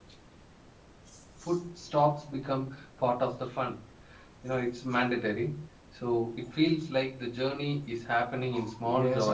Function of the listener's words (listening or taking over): taking over